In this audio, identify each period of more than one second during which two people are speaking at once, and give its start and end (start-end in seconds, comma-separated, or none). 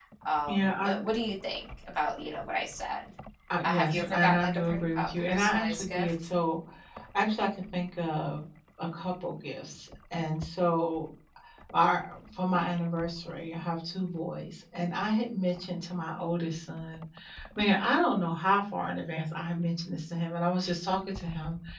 3.6-6.1